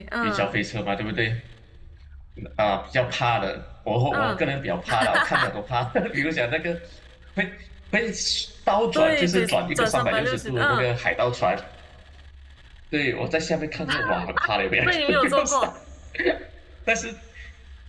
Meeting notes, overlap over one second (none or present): present